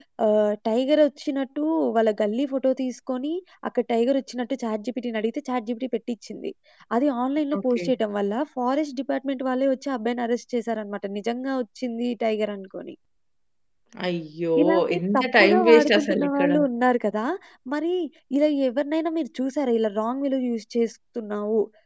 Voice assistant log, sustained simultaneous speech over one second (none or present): present